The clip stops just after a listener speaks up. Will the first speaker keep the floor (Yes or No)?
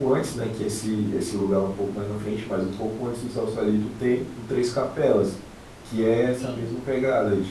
Yes